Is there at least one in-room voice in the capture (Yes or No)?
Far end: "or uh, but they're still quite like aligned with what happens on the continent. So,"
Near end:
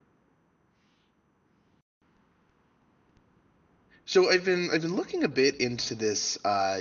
Yes